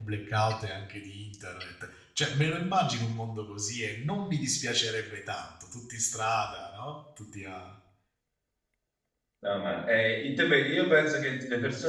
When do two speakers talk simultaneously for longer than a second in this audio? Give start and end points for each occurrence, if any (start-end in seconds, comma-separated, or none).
none